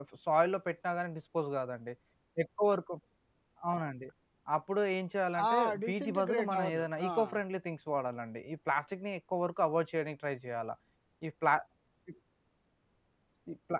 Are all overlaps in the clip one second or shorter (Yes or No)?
No